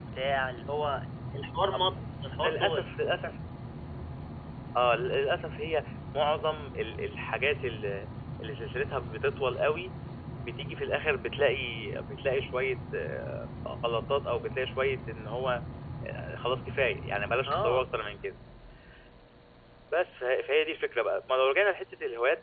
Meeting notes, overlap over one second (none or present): none